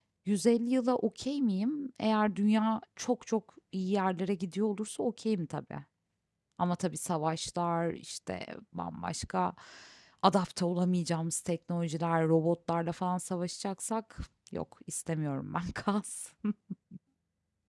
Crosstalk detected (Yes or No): No